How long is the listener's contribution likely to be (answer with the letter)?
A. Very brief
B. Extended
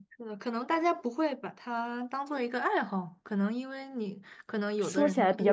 B